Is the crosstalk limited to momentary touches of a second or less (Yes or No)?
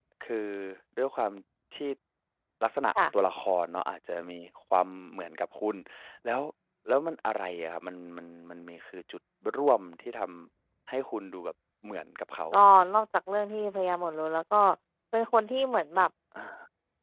Yes